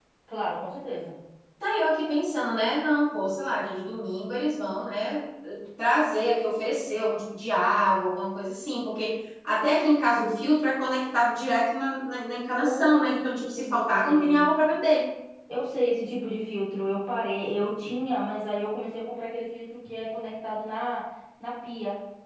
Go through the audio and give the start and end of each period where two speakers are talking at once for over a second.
12.6-14.5

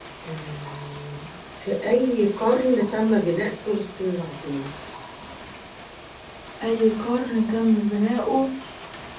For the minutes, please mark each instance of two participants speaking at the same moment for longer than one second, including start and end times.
none

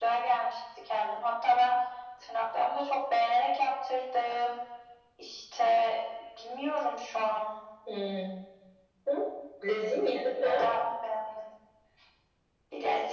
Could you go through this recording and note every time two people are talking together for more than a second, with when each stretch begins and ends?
none

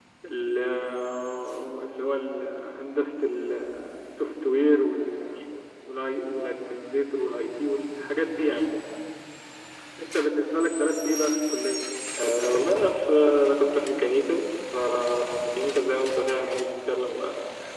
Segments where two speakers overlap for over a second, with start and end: none

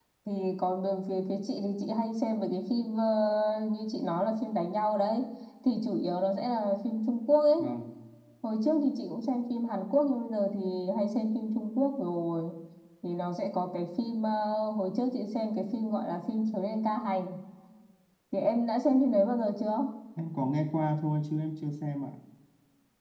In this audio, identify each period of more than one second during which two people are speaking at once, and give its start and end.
none

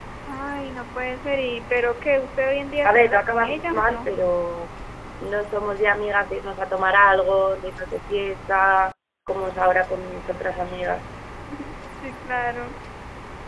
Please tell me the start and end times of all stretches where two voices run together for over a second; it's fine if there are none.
2.9-4.1

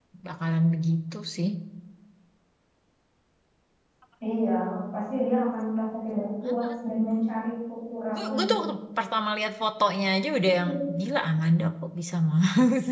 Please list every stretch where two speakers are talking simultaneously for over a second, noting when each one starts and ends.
none

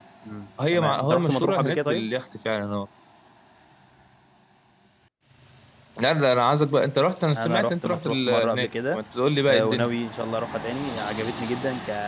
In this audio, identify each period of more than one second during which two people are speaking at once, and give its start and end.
0.7-2.1, 7.3-9.0

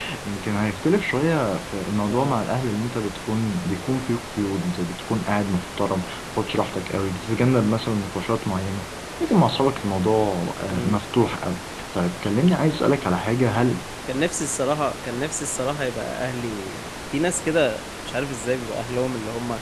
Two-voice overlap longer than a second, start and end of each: none

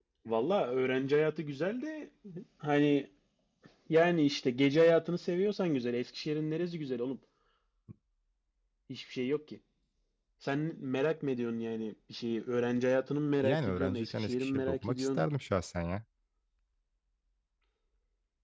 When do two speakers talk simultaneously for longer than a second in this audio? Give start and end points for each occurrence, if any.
13.4-15.2

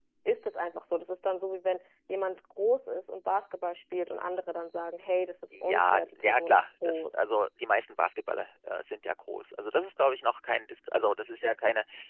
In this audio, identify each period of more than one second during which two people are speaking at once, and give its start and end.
5.5-7.2

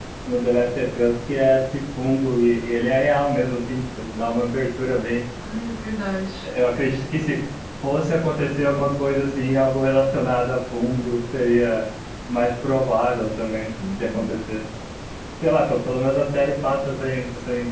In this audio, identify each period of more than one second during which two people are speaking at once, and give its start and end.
none

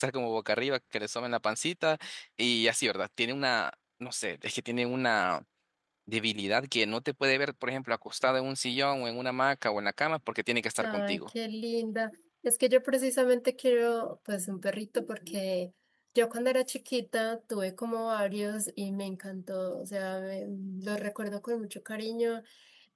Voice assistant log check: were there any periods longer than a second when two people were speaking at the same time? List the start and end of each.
none

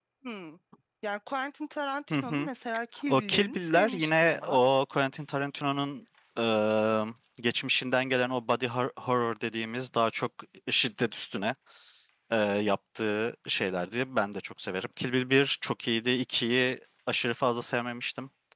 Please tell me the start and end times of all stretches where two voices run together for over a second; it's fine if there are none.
3.1-4.6

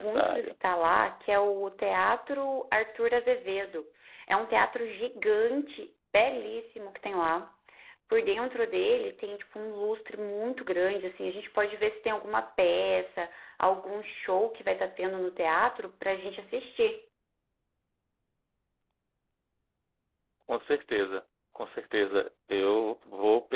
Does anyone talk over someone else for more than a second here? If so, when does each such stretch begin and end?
none

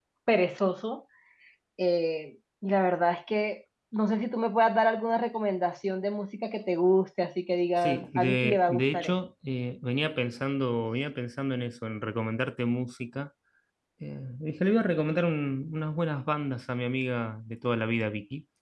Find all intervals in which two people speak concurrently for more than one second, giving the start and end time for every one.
7.8-9.1

